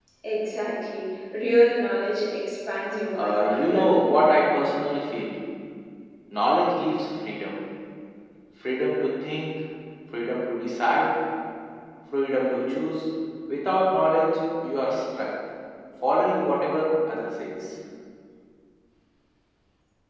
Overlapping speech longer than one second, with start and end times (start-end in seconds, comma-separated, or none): 3.1-4.3